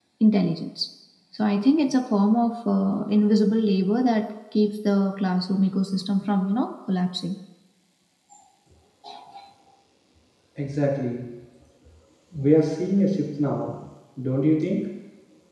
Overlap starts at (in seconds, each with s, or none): none